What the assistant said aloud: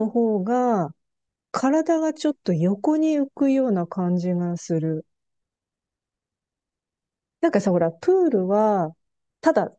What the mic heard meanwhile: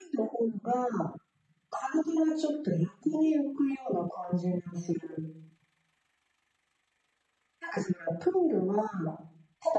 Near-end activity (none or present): none